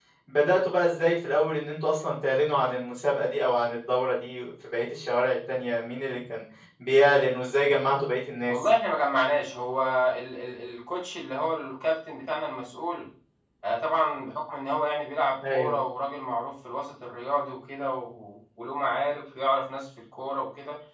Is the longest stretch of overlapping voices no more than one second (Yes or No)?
Yes